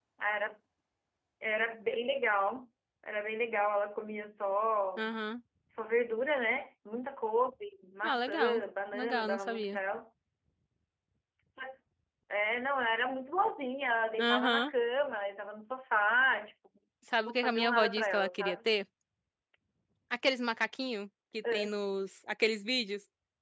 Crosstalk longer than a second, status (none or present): present